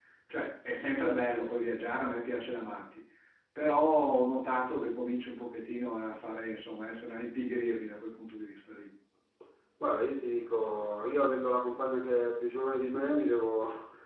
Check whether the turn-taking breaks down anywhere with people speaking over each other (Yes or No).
No